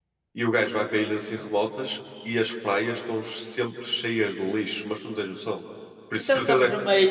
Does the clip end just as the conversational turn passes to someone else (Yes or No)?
Yes